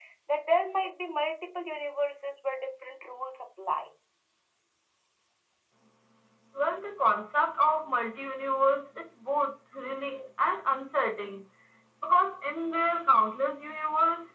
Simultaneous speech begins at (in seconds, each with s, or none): none